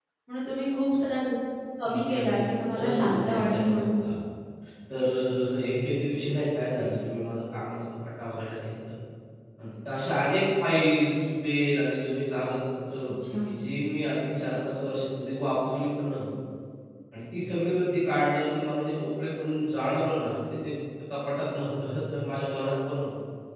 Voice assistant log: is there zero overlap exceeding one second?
No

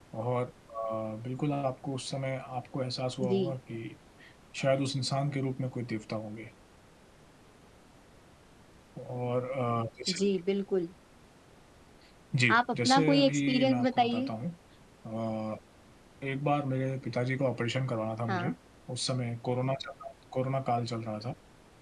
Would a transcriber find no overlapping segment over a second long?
No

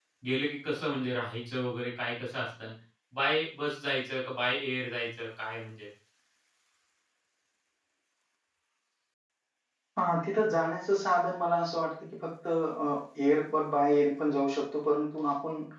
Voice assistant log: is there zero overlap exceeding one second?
Yes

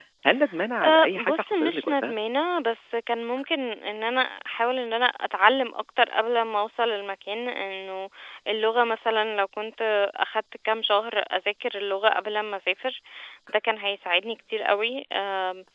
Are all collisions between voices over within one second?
No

